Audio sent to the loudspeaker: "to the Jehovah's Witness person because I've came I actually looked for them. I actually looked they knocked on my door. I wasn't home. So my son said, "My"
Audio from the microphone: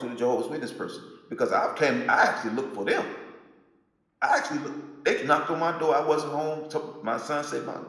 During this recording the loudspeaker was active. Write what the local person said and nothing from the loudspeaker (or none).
none